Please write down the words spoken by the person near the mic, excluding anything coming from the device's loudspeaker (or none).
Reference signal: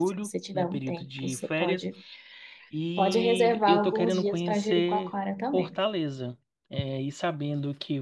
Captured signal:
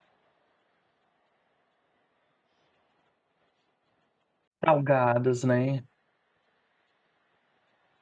Salgadas, né?